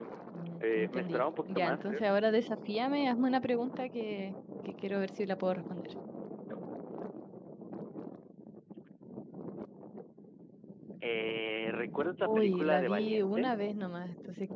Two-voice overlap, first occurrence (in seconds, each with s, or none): 0.6 s